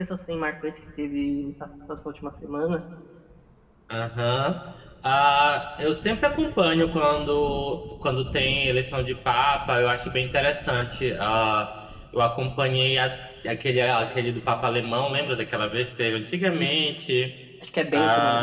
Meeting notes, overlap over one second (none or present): none